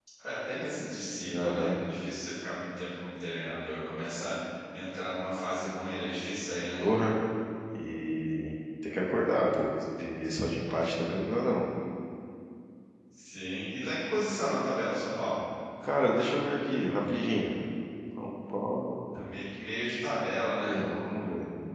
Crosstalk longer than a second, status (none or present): none